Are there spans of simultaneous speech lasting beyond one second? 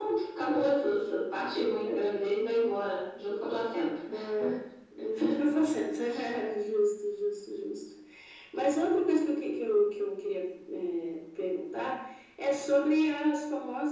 No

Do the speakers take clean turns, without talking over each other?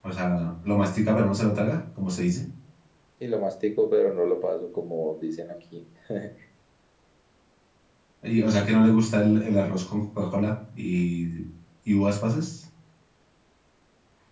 Yes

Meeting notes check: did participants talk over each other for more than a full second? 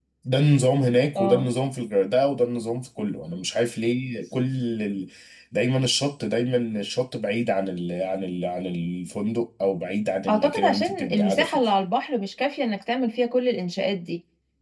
Yes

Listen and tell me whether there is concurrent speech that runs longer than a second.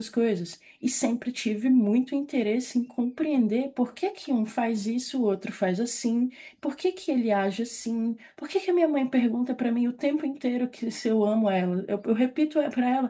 No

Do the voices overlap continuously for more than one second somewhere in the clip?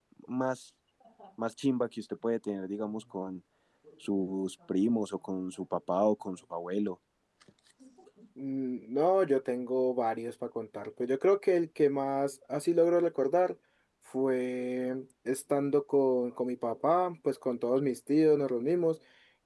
No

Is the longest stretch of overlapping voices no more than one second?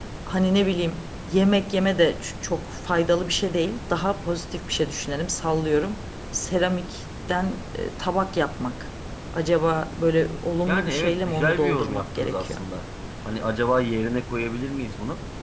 No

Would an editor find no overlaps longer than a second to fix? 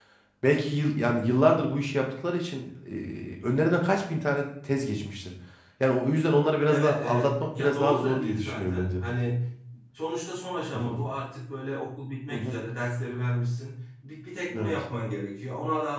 No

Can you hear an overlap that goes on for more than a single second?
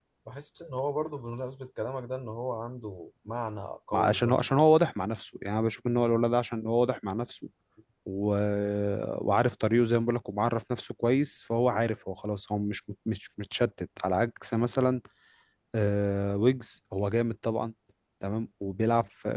No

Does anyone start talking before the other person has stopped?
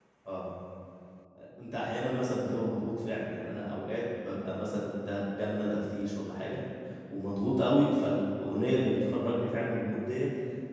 No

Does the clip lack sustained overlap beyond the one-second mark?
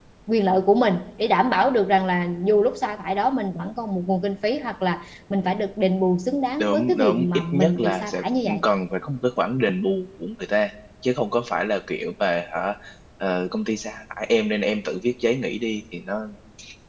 No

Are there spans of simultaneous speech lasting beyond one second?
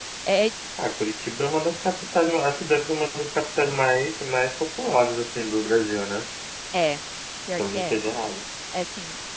No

